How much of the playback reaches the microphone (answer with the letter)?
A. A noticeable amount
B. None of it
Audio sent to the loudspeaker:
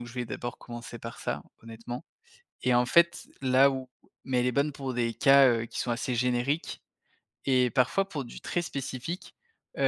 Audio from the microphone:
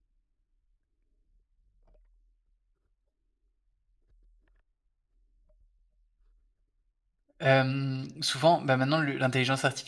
B